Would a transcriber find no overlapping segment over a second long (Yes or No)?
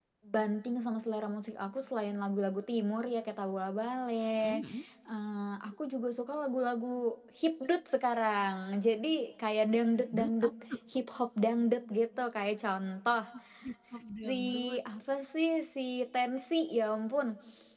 Yes